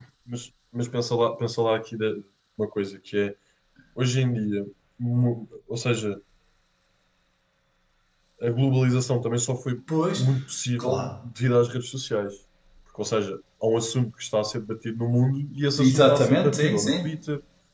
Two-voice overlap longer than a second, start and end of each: 15.8-17.1

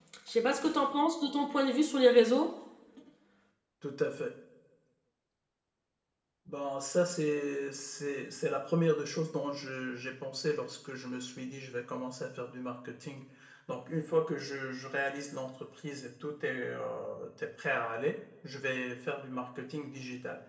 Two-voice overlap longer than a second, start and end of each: none

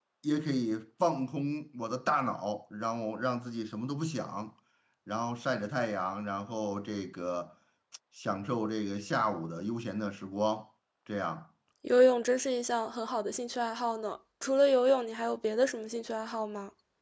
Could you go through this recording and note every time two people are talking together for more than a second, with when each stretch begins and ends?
none

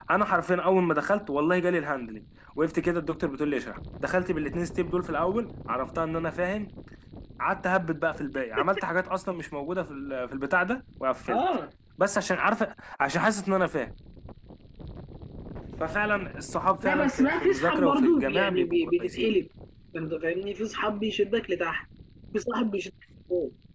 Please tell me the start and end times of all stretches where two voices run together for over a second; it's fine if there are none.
16.8-19.3

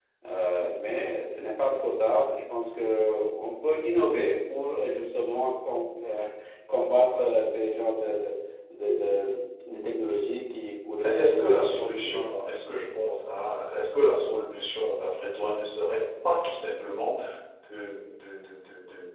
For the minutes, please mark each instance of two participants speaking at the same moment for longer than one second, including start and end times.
11.0-12.2

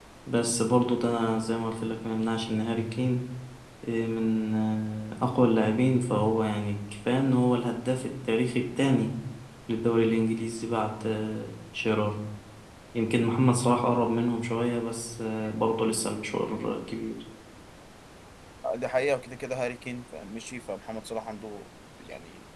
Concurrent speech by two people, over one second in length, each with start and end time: none

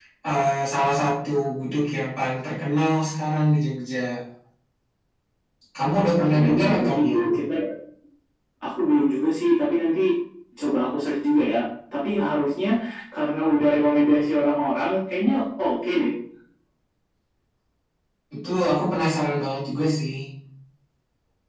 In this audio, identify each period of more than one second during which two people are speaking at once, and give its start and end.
6.0-7.2

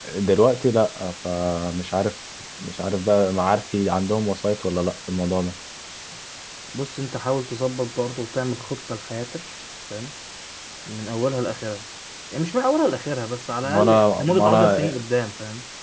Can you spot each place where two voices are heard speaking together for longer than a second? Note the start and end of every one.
13.7-14.9

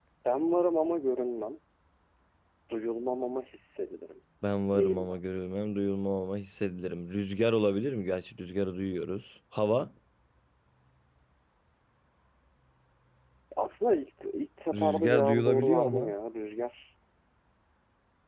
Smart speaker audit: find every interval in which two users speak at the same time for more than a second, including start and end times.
14.7-16.1

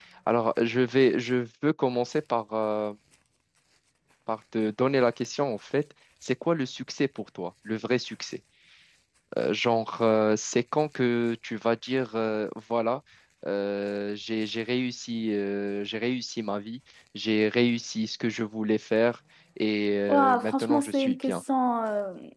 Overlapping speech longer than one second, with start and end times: 20.1-21.4

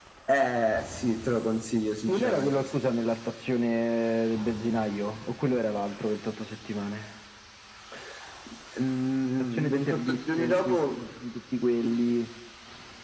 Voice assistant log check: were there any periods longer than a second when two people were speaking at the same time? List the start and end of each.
9.4-11.0

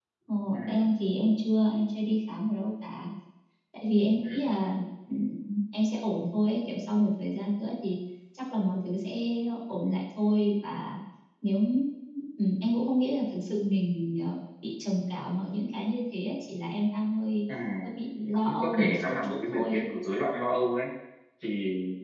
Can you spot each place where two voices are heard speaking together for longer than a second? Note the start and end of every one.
18.4-19.8

